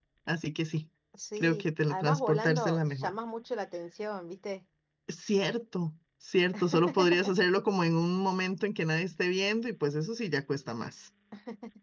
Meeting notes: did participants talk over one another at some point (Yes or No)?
Yes